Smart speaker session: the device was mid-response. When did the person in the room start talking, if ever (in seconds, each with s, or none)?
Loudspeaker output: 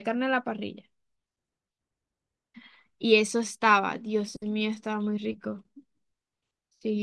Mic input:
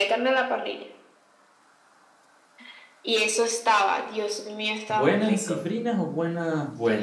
4.9 s